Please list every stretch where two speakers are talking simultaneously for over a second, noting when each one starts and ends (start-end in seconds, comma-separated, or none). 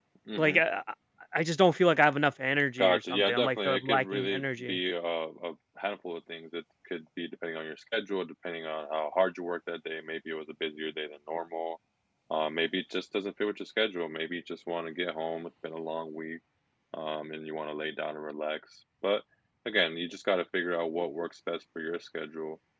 2.8-4.8